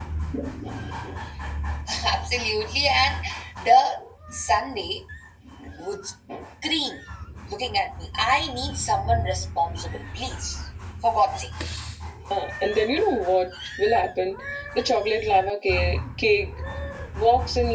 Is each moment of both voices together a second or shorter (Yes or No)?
Yes